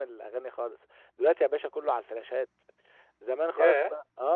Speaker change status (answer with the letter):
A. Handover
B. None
B